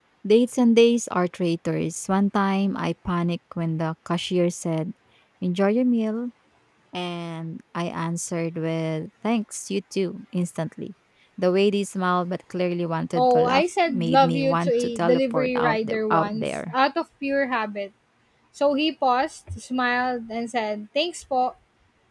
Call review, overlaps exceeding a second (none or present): present